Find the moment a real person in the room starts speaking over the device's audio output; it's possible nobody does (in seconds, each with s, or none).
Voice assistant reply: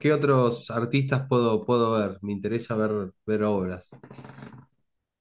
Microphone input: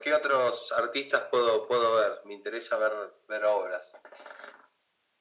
none